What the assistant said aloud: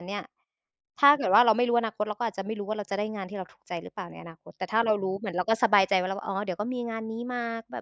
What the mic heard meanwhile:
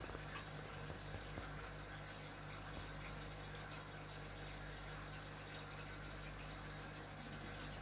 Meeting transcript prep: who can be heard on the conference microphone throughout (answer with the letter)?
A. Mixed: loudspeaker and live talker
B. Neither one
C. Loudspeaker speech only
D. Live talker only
B